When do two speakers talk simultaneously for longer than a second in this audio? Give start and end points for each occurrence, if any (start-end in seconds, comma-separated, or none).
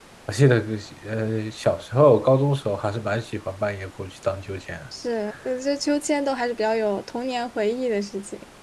none